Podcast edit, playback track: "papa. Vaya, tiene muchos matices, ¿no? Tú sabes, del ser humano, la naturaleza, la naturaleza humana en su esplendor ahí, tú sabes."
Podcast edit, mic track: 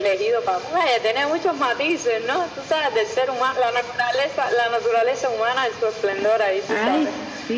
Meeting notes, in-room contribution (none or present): present